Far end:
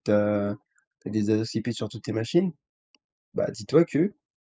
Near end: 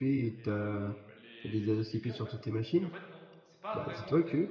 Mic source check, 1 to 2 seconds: both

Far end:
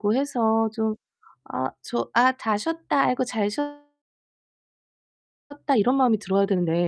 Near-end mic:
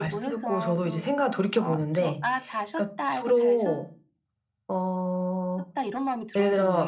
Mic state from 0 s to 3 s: both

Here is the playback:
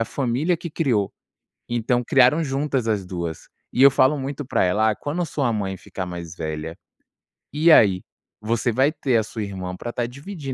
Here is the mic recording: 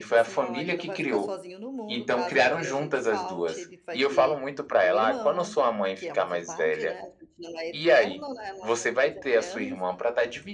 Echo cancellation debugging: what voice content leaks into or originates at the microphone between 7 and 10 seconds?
both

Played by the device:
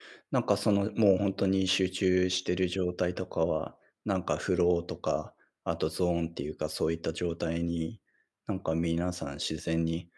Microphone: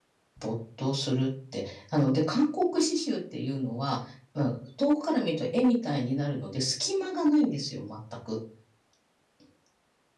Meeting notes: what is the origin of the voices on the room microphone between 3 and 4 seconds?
user only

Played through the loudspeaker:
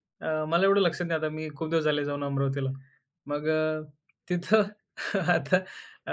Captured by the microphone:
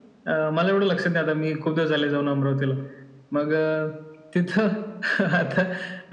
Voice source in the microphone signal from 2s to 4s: echo only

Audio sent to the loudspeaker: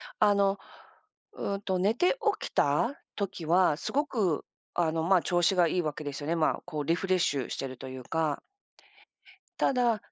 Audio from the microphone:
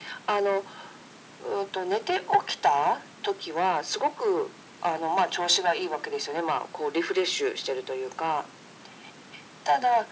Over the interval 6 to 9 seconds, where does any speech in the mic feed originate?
echo only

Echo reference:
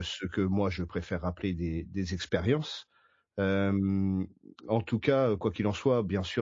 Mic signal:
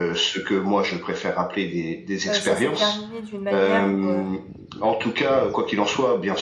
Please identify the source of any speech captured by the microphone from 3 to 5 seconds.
both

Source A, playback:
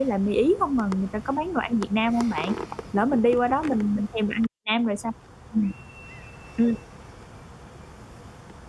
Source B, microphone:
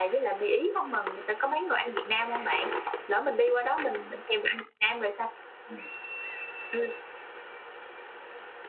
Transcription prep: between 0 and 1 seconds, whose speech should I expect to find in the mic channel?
echo only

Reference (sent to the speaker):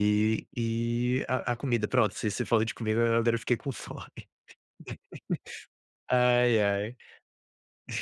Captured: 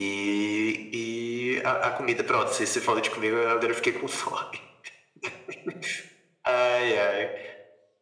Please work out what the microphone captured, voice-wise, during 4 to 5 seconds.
echo only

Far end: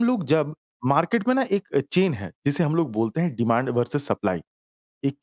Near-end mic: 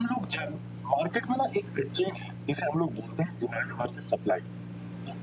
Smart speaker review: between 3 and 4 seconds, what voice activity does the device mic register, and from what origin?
echo only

